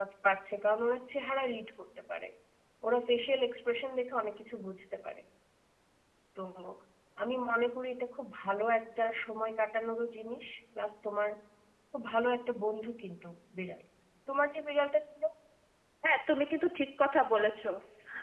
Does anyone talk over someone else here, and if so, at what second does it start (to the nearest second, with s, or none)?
none